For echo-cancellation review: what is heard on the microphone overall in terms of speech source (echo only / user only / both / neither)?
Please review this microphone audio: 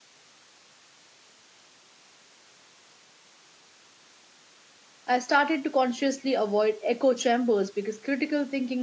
user only